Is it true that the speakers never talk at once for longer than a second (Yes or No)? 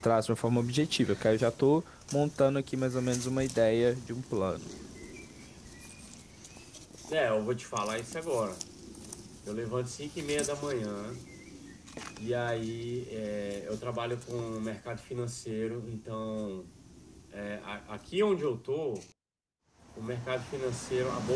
Yes